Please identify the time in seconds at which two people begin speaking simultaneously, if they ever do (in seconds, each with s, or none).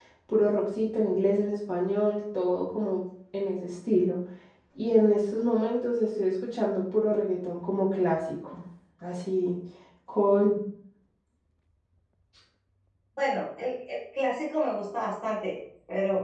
none